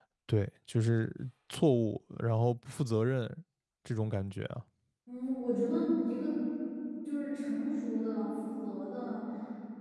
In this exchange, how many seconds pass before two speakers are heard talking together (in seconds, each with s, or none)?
none